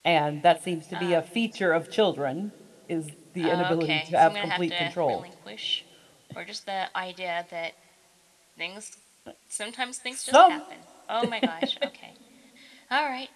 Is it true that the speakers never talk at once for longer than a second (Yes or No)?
No